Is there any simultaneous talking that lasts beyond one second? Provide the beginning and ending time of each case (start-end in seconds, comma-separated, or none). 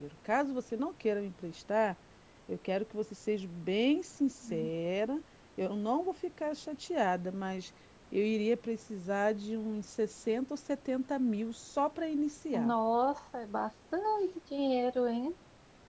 none